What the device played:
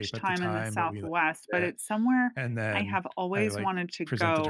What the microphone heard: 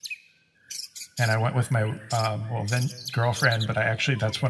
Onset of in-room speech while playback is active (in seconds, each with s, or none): 1.2 s